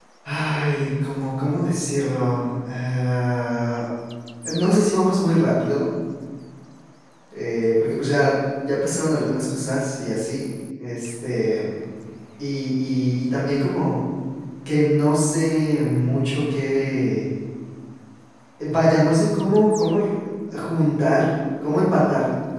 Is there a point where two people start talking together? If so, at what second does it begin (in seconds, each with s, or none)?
none